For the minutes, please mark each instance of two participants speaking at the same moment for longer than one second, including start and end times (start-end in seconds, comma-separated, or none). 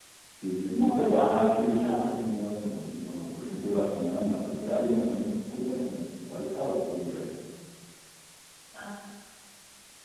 0.7-2.1